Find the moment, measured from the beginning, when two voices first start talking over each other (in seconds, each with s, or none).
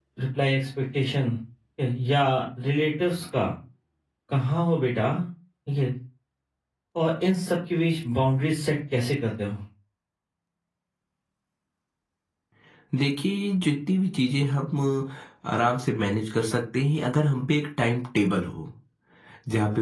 none